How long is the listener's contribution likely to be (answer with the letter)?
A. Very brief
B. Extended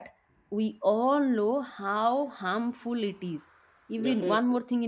A